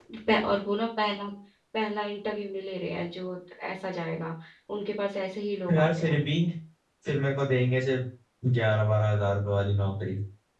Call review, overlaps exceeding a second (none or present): none